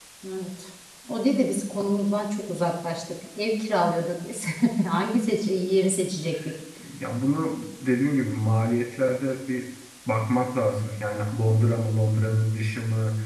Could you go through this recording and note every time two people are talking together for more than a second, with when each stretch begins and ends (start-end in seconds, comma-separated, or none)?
none